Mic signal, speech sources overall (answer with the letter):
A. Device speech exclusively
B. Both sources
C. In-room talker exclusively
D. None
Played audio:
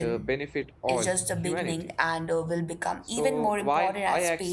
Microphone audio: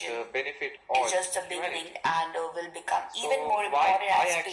A